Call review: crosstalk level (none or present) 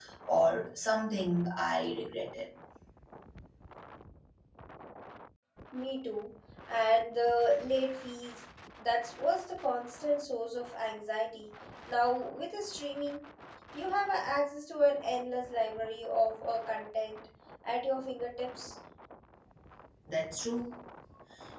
none